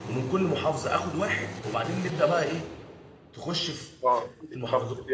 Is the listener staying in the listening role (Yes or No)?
No